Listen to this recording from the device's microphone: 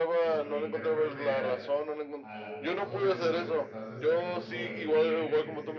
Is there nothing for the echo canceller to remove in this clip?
No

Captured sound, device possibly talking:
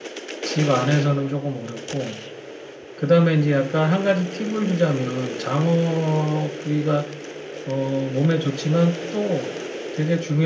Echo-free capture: Yes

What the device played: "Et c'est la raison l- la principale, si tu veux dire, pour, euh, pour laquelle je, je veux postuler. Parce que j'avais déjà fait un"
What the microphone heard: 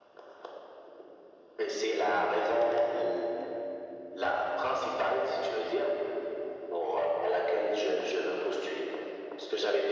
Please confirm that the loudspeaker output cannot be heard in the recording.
No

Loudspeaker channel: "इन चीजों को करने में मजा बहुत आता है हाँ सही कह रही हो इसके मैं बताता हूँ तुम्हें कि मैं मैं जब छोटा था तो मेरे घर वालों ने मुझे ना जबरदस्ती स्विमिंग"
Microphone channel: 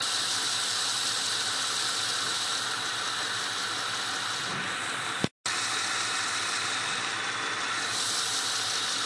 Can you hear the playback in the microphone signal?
No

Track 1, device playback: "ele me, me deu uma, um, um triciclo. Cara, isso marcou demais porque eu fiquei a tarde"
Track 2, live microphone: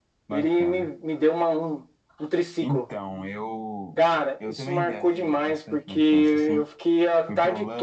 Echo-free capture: No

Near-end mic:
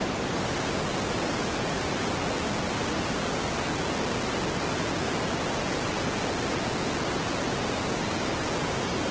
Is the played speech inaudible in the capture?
Yes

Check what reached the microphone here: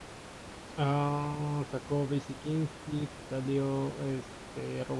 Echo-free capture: Yes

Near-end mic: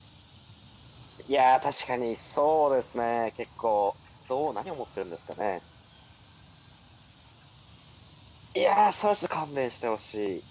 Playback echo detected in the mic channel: No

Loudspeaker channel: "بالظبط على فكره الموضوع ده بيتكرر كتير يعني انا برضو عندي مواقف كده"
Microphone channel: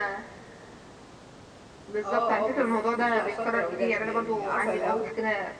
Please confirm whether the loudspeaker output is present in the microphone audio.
Yes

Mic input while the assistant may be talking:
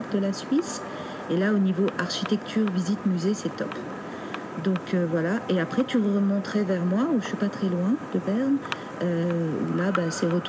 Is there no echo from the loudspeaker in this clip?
No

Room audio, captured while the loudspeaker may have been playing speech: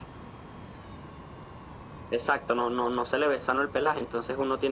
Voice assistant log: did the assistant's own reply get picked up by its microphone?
Yes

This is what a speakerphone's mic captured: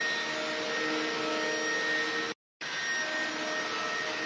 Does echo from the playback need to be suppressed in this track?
No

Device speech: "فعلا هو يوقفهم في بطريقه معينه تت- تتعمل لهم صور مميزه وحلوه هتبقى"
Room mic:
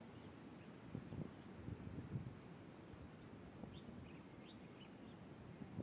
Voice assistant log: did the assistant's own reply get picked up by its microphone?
No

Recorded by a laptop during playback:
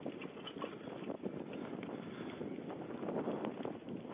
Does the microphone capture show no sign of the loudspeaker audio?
Yes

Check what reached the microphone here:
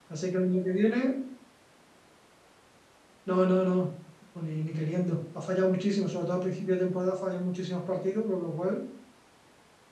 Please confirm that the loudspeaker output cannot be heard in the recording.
Yes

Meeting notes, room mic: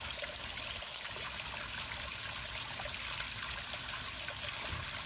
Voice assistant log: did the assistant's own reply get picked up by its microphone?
No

